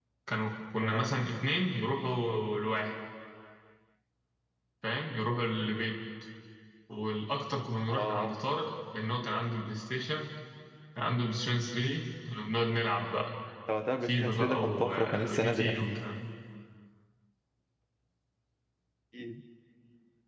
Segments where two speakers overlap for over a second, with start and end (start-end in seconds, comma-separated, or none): 14.0-16.0